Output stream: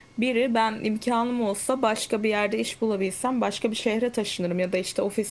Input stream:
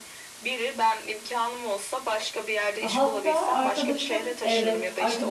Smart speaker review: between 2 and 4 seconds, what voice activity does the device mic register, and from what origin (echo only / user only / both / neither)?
both